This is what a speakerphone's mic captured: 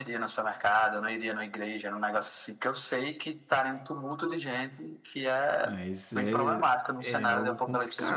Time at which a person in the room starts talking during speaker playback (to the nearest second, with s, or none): 6 s